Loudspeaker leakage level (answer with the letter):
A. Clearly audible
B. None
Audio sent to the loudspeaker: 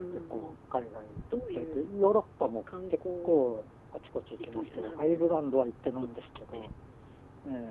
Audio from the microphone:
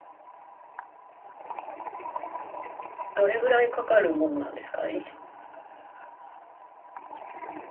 B